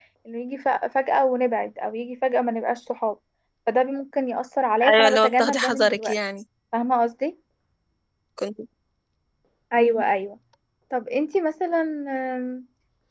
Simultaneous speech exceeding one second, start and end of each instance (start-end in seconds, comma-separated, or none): 4.9-6.2